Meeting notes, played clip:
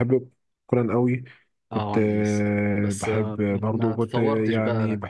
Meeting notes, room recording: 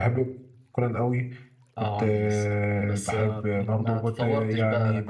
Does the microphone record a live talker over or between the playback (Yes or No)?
No